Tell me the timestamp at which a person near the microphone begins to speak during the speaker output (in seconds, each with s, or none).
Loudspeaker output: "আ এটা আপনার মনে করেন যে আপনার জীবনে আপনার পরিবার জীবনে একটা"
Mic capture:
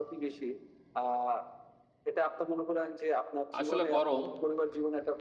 3.6 s